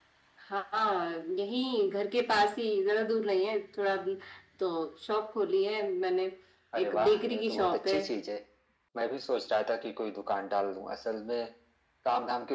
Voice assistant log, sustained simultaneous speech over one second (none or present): present